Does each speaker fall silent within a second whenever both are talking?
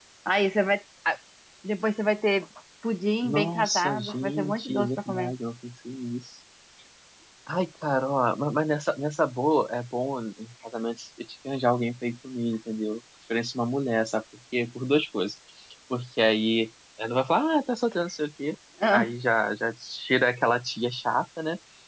No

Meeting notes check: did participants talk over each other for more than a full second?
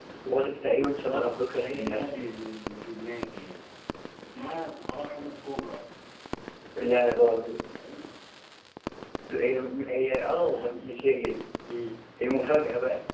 Yes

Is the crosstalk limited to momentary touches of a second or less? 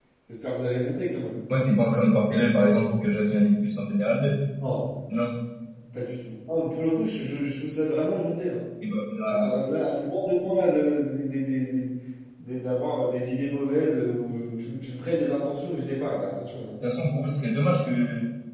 Yes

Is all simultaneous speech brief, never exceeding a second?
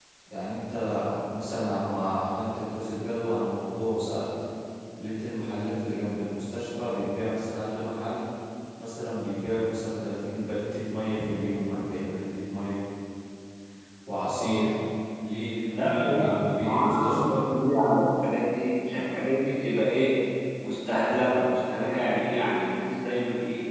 No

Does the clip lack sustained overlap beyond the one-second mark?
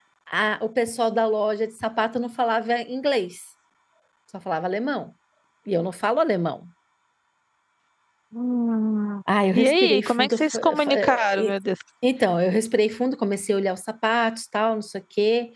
No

